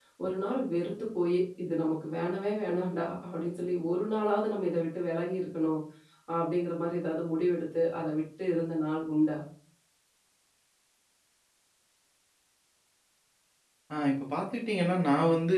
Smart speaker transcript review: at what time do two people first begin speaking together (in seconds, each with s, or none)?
none